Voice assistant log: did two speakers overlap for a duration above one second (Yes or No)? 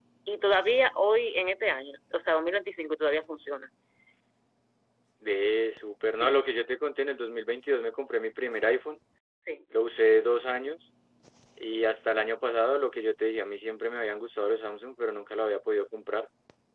No